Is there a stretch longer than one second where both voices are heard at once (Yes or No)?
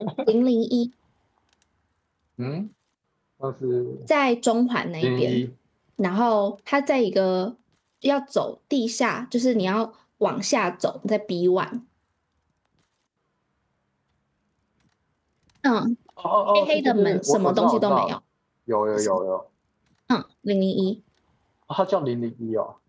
Yes